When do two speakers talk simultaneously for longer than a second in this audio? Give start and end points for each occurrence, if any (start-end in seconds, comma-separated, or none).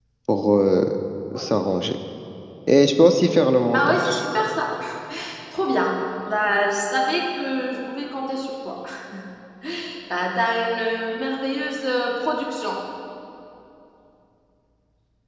none